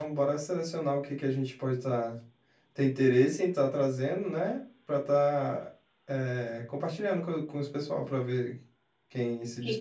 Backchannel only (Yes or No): No